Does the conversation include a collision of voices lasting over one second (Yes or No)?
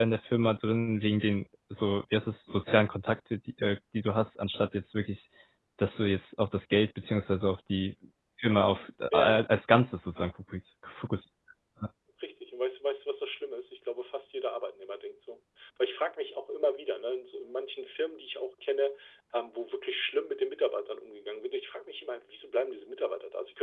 No